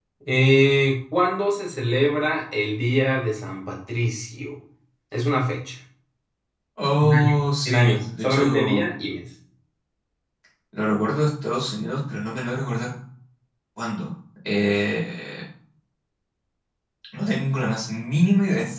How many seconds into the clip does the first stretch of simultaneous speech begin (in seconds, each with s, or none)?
7.0 s